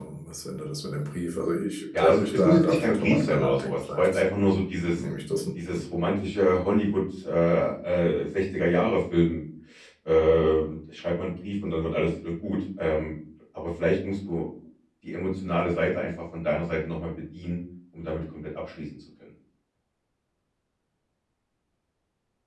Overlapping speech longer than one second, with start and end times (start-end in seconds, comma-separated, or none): 1.9-4.2